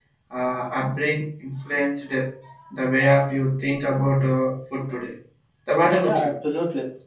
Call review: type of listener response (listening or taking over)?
taking over